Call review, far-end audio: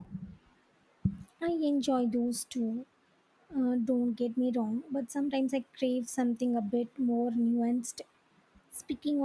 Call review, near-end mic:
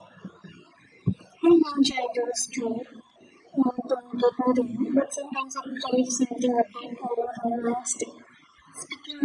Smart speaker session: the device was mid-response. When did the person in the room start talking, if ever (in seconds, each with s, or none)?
none